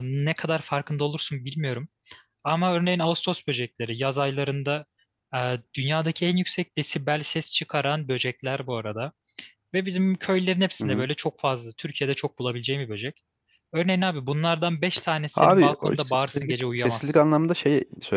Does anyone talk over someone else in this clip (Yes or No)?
Yes